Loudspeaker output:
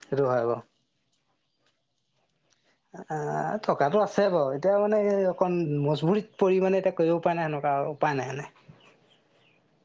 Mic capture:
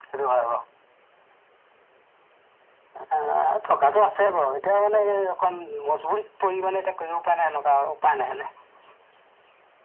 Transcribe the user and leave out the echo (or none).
none